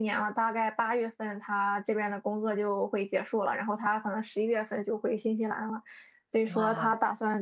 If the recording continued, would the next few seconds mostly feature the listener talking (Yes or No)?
No